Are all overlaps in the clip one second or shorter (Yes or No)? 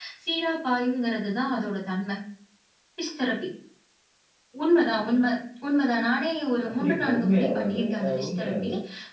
No